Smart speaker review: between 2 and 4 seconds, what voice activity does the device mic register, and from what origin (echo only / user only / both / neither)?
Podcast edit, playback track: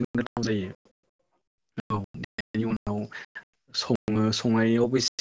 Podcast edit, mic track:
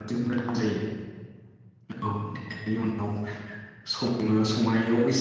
echo only